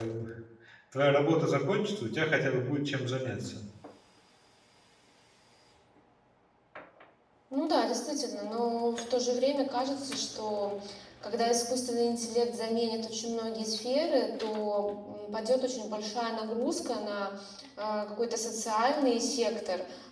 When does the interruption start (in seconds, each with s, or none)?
none